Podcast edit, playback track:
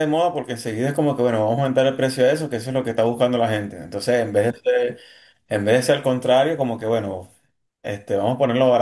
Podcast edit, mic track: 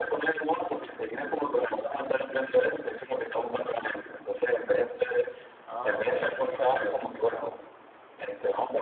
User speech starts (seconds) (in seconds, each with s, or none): 5.6 s